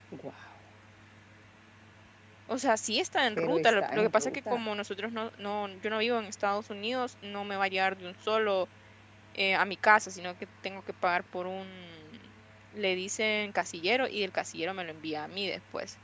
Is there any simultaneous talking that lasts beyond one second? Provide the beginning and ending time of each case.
3.3-4.6

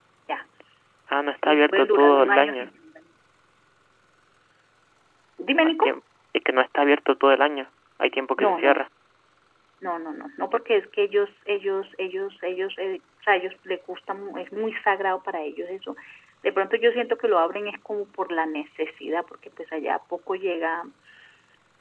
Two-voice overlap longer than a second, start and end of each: 1.4-2.7

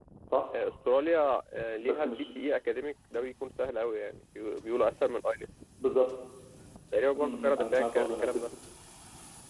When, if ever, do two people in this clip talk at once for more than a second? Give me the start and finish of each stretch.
7.2-8.4

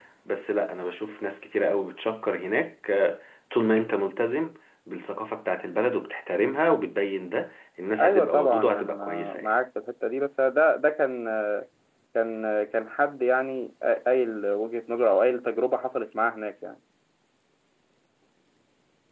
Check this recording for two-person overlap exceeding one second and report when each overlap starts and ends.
8.0-9.6

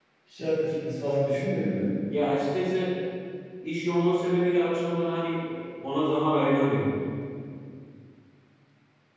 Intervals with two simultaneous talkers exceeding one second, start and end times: none

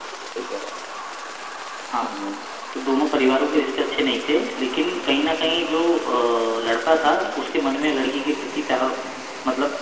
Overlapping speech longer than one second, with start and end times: none

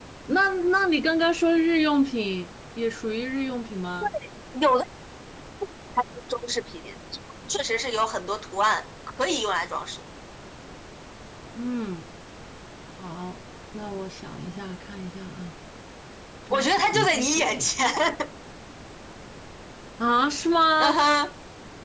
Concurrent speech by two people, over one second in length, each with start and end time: 16.5-17.7

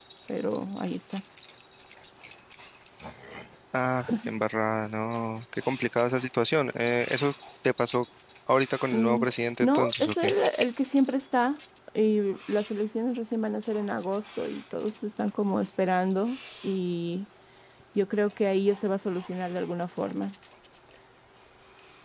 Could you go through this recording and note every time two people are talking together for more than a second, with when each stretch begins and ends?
8.9-10.3

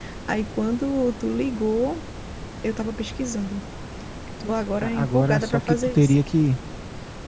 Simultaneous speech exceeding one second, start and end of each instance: 4.8-6.1

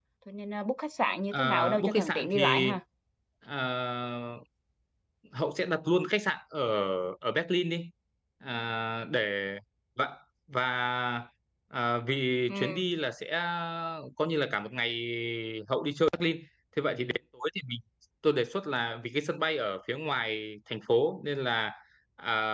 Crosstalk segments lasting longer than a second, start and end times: 1.3-2.7

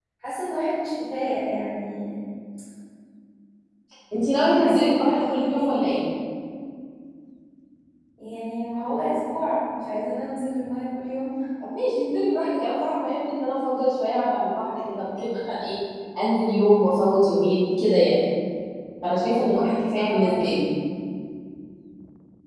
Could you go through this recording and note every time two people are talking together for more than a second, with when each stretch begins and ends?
4.5-5.8

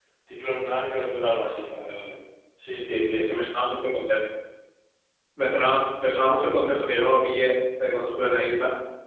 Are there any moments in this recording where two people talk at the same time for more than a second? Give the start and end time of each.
none

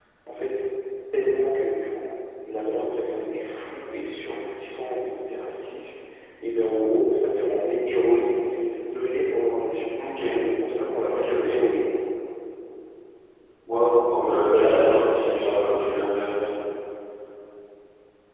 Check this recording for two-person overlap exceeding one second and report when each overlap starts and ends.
14.1-16.1

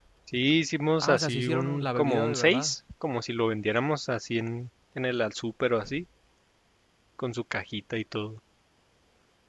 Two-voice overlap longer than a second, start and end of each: 1.0-2.7

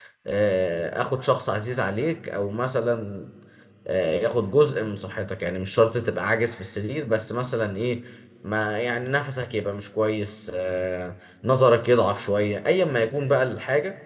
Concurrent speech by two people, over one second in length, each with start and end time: none

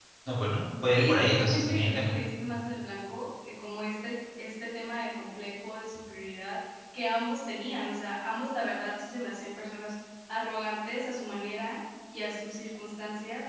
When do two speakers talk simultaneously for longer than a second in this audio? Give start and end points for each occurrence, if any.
0.9-2.1

